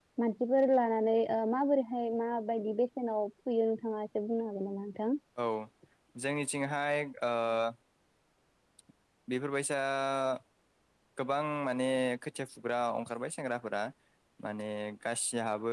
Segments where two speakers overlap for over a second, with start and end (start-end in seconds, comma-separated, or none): none